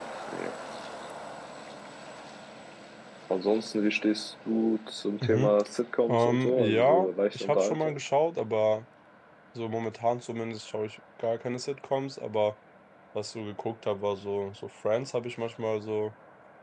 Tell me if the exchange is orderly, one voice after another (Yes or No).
No